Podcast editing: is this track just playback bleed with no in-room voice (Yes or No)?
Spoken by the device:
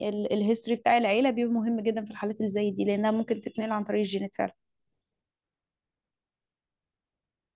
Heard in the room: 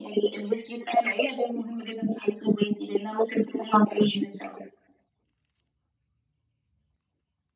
Yes